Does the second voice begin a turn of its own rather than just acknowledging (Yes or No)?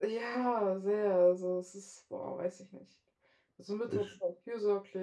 No